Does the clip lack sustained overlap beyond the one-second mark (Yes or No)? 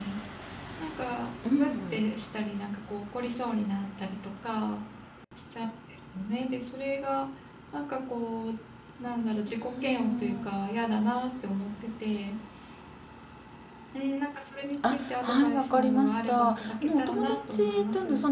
No